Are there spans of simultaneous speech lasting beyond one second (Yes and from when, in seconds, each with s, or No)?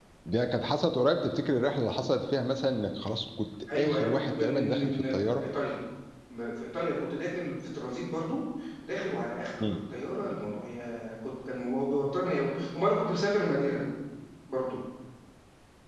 Yes, from 3.7 s